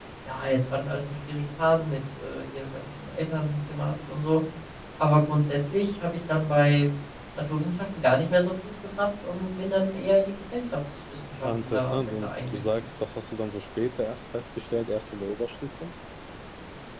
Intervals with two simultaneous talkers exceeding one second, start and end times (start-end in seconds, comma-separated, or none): 11.4-12.9